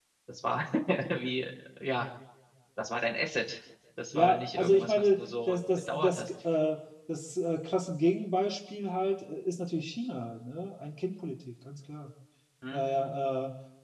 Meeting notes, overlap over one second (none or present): present